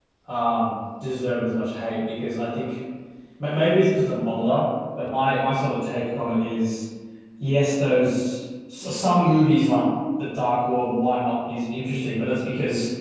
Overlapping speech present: No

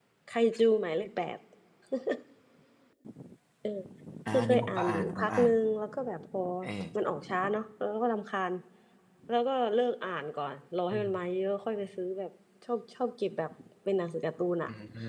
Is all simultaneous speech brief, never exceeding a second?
No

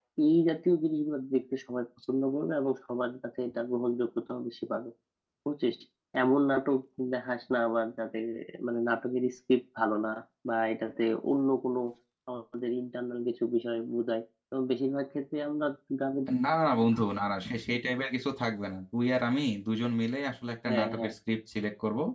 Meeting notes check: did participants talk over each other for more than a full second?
No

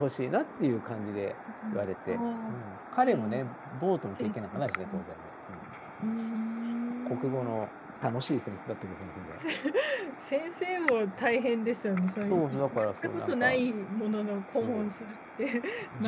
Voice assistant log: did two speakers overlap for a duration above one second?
Yes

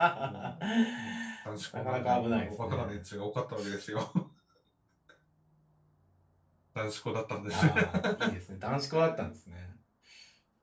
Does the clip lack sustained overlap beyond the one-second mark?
No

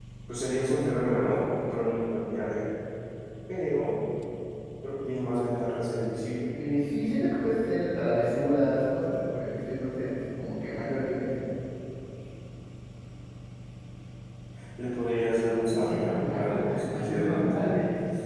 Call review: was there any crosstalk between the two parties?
Yes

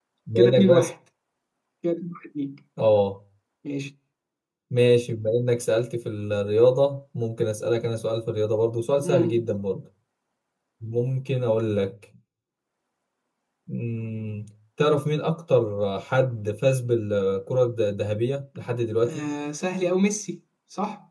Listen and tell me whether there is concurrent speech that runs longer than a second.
No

